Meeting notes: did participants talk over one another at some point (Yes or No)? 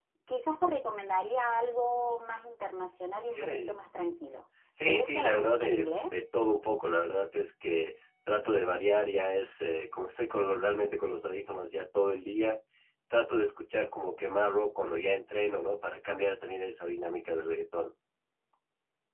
Yes